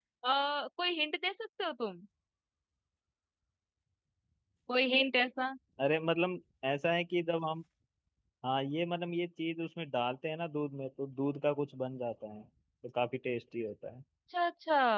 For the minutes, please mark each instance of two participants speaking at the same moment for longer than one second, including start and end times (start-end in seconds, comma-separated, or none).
none